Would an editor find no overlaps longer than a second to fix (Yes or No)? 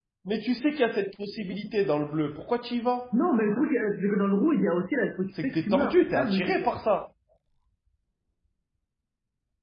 No